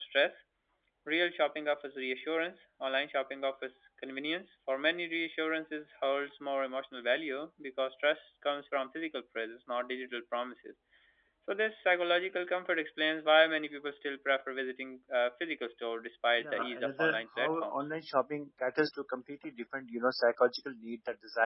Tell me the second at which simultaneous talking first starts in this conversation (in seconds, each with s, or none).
16.4 s